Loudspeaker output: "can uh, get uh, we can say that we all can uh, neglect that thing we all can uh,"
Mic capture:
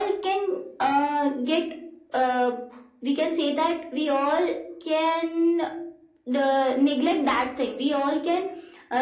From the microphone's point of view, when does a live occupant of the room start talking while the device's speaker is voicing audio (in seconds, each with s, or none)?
none